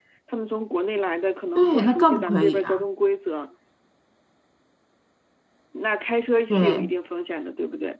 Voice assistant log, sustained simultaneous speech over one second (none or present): present